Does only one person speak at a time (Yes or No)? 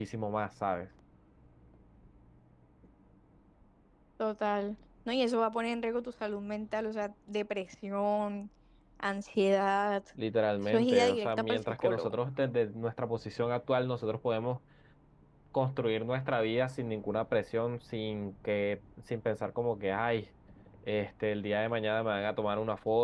No